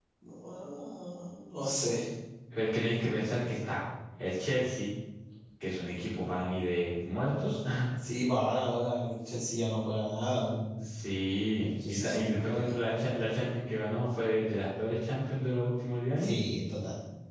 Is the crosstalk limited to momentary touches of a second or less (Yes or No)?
No